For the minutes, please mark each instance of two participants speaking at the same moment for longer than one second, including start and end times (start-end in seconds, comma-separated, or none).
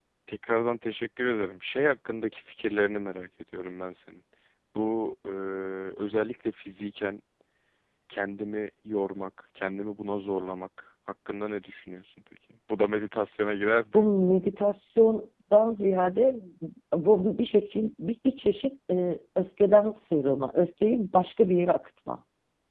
none